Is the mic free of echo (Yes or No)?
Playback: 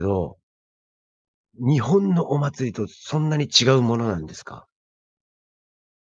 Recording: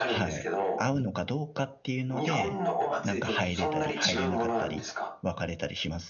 No